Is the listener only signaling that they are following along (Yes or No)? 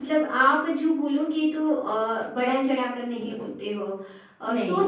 Yes